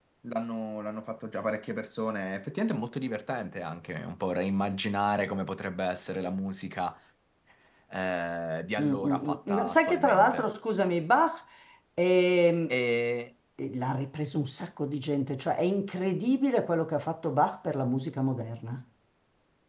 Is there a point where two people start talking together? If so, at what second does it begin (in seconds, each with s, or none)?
8.8 s